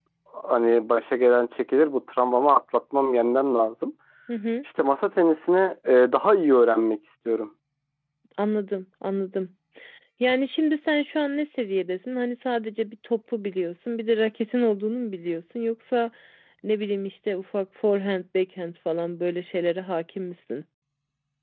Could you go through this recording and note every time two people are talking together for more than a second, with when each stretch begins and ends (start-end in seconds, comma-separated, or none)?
none